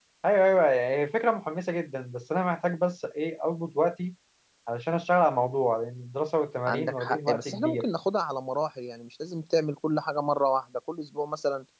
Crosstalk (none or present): present